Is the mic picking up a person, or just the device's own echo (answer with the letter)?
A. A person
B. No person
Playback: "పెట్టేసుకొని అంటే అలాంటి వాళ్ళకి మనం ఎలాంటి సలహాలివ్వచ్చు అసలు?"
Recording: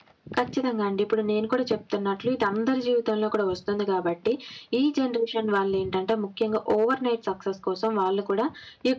A